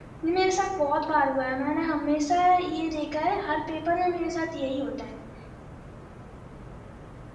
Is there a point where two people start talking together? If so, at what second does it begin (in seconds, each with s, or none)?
none